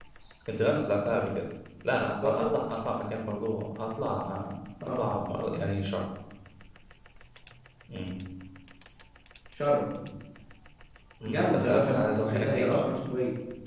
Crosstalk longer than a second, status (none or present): present